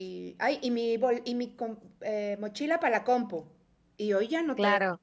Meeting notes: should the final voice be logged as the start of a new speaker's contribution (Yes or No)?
Yes